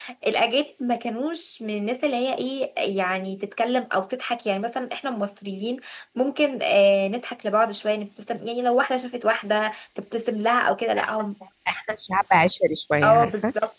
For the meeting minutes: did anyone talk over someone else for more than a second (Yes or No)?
No